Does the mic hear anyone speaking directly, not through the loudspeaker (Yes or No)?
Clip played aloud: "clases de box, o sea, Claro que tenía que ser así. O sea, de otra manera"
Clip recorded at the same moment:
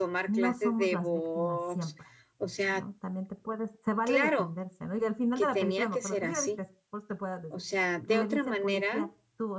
Yes